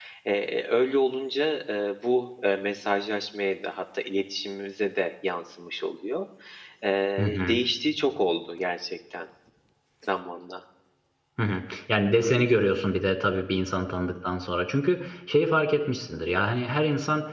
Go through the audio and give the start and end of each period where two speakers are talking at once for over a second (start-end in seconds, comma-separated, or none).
none